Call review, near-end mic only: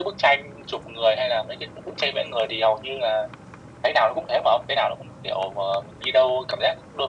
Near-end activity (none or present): none